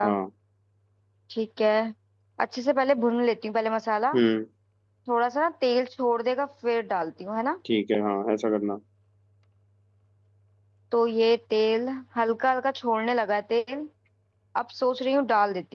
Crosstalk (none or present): none